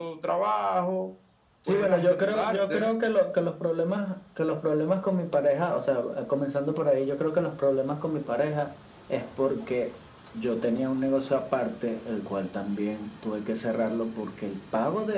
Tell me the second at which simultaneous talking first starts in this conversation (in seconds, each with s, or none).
1.7 s